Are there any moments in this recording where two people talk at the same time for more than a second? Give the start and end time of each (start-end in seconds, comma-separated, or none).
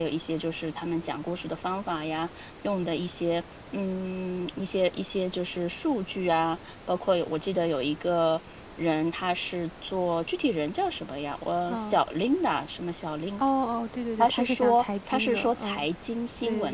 14.2-15.8